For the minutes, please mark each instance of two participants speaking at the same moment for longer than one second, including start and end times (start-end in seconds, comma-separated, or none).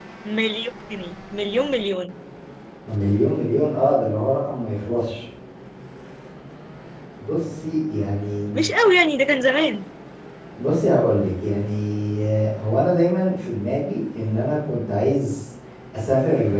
none